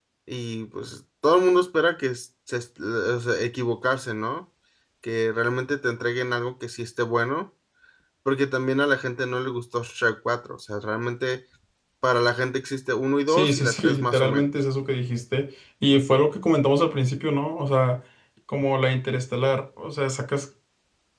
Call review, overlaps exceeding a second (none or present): present